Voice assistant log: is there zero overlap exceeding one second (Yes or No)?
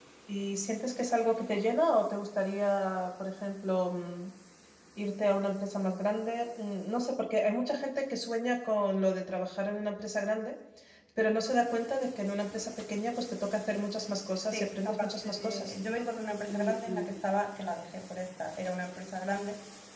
No